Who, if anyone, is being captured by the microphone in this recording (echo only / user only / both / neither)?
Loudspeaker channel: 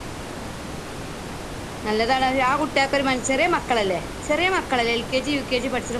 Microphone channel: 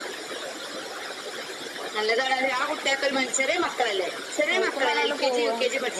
both